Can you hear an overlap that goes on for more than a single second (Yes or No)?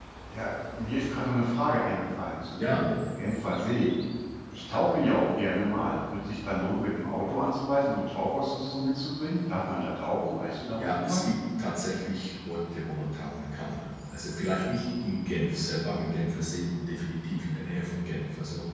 No